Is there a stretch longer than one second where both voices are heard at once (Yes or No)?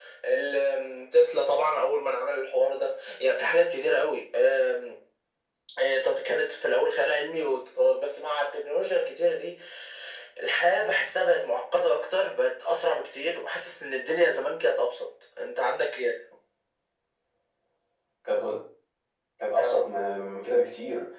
No